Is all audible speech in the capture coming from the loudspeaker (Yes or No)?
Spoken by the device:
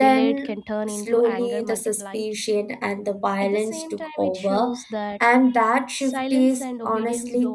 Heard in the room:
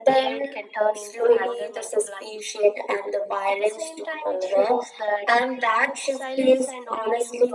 Yes